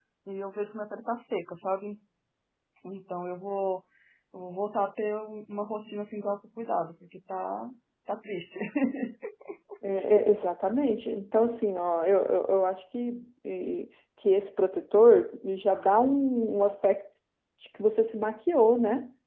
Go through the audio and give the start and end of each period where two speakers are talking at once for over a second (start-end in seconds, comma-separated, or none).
none